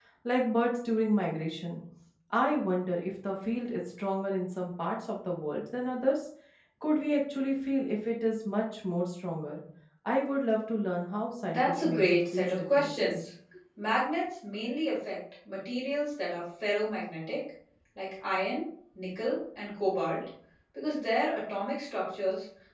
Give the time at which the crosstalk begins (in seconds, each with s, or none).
11.5 s